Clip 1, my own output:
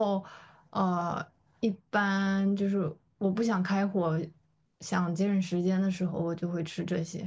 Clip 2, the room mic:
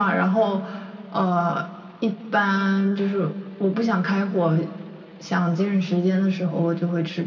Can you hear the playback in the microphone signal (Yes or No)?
Yes